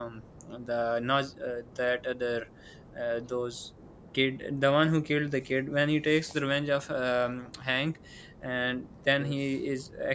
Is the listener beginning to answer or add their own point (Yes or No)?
No